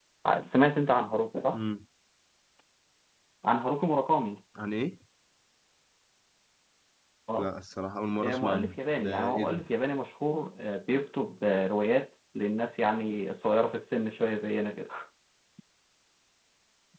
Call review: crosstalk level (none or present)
present